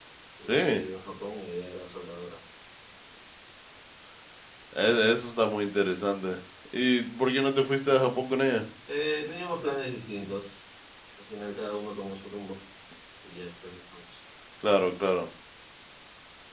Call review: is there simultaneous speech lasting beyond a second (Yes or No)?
No